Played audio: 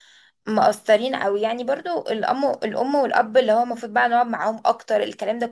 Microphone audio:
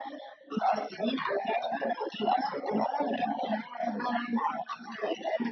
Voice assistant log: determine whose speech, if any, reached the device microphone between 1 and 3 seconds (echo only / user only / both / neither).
echo only